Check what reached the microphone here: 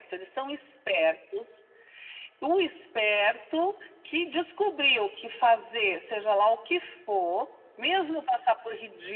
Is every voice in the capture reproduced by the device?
Yes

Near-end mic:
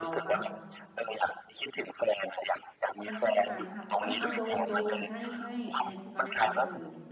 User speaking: Yes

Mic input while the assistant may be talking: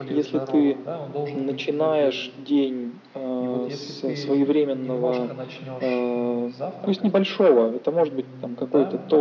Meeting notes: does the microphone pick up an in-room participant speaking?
Yes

